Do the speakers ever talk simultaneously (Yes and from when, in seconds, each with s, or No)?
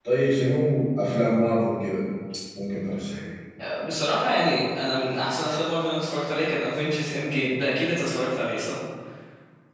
No